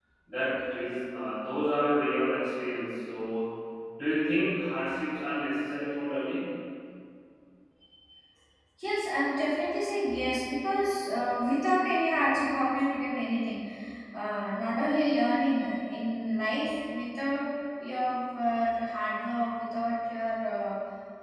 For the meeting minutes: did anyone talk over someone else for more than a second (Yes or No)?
No